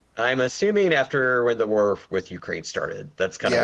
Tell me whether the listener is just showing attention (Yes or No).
No